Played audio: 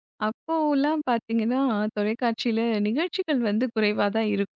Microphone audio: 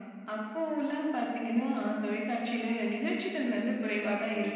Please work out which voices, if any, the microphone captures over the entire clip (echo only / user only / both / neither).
echo only